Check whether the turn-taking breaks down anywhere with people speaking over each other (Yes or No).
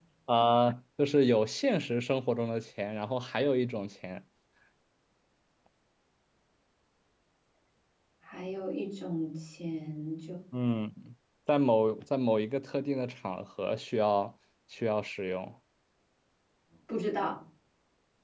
No